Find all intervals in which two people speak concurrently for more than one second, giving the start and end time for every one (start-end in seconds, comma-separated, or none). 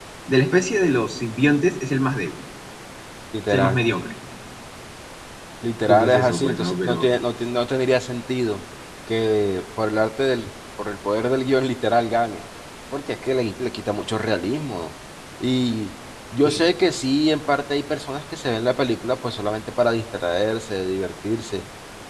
5.8-7.1